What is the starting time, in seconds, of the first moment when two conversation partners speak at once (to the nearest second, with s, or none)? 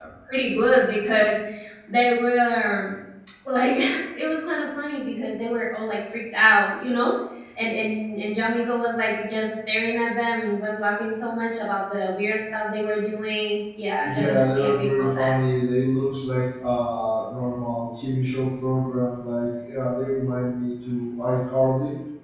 14 s